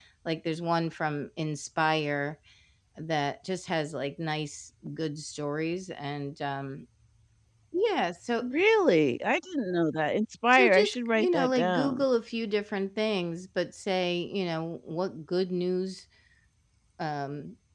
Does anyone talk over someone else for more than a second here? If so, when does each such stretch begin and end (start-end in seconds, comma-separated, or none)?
10.5-12.0